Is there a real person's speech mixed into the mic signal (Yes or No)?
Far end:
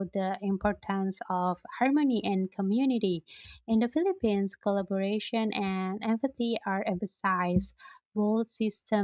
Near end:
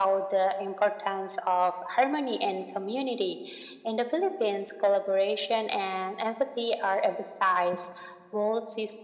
No